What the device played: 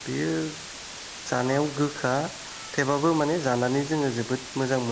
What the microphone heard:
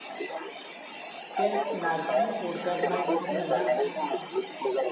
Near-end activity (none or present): present